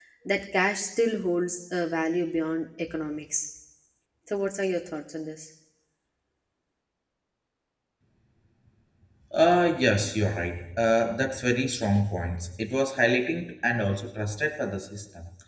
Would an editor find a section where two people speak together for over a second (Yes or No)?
No